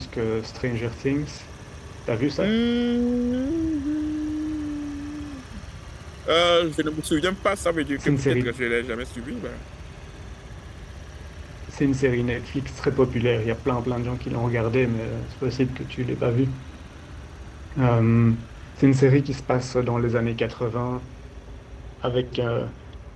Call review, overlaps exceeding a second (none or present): none